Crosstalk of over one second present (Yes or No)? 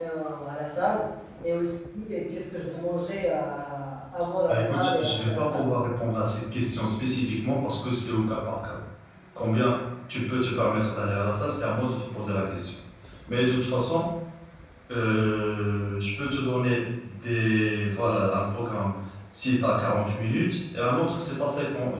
Yes